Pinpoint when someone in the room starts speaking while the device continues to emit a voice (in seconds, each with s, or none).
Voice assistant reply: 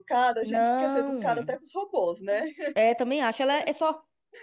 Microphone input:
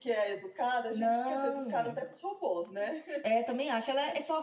none